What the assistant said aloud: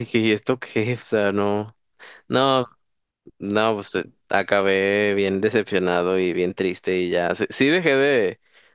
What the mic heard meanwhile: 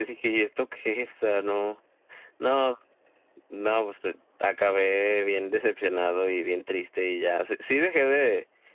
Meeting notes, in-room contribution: none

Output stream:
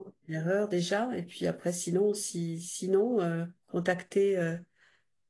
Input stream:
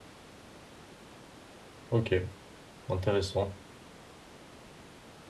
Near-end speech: present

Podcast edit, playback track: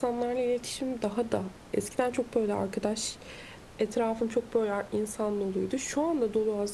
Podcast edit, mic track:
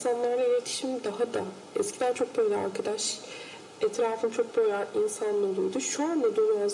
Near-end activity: none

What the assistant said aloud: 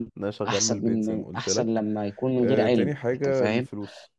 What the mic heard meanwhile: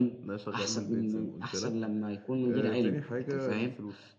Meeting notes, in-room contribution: none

